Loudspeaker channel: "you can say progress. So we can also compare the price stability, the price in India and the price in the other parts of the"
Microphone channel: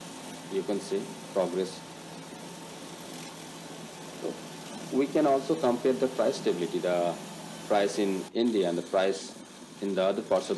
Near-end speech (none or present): none